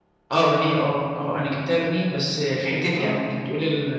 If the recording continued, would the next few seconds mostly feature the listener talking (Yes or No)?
No